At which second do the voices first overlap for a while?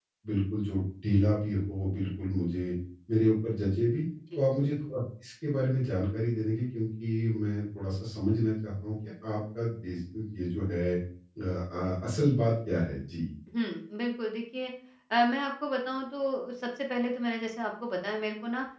none

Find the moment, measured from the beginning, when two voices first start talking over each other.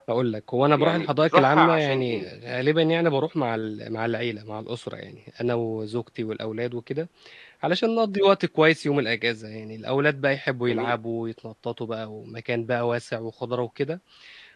0.8 s

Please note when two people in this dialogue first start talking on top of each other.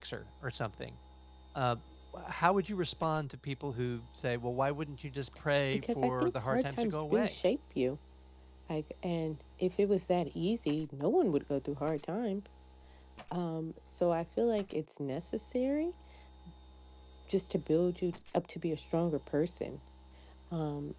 5.7 s

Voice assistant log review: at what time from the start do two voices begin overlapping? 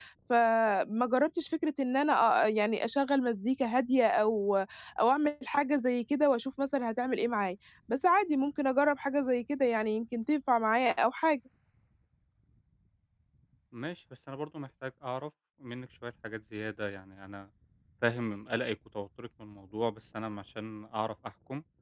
none

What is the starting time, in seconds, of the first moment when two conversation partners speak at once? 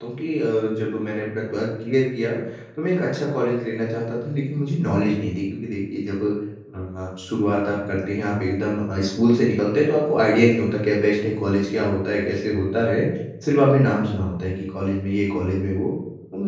none

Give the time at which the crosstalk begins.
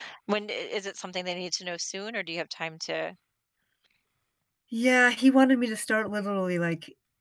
none

